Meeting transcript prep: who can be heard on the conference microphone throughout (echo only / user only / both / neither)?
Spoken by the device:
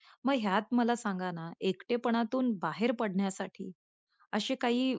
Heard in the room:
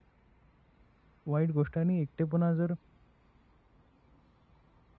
user only